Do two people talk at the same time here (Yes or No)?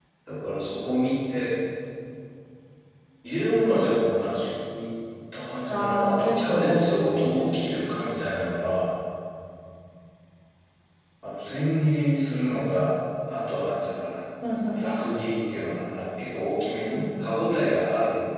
Yes